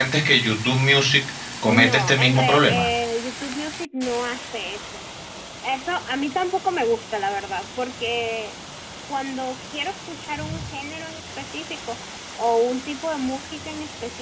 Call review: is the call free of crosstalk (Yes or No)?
No